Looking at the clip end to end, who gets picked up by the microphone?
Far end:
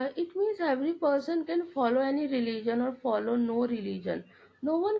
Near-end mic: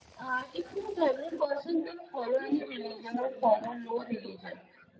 both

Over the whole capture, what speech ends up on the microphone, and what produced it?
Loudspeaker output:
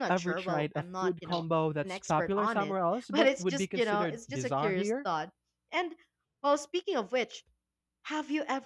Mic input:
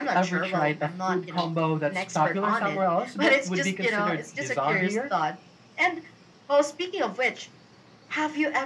echo only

